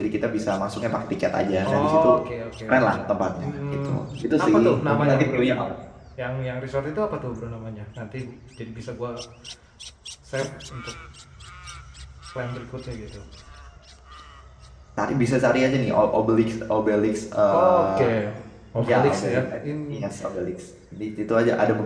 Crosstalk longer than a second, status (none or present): present